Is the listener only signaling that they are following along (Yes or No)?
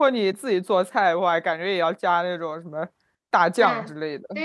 No